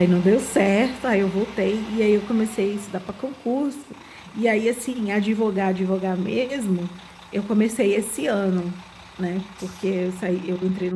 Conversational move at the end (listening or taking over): listening